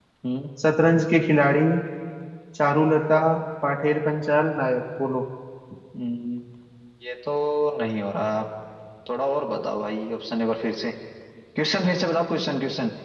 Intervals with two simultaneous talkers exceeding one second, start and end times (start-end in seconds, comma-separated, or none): none